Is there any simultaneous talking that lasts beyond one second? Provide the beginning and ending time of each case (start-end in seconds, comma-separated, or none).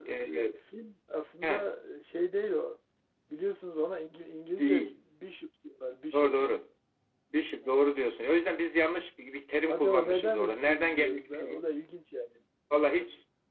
9.7-11.6